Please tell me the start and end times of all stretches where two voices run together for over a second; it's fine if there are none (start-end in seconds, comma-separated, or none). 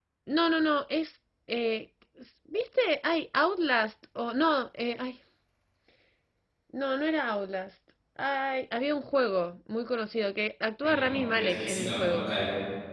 10.8-12.3